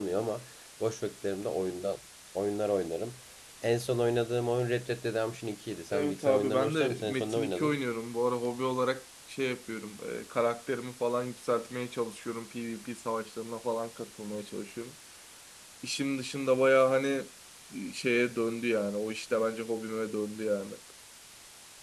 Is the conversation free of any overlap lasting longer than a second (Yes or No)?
No